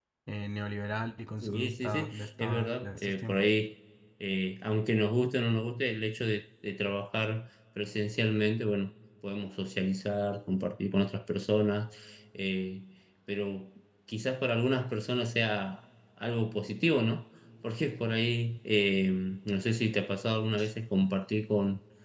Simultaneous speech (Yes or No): Yes